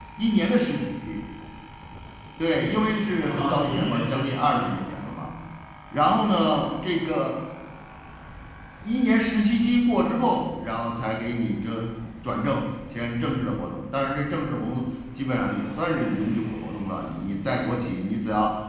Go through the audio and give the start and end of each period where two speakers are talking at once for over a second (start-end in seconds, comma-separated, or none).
3.1-4.8